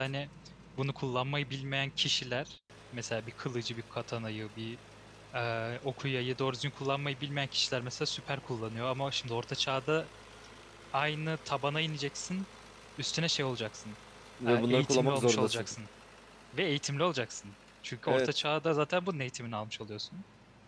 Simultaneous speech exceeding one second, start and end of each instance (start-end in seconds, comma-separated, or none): 14.4-15.7